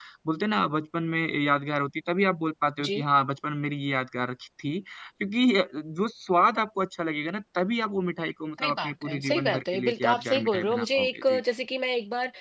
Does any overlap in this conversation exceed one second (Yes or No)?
Yes